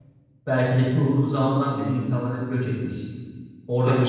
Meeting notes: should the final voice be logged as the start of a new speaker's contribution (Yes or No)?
No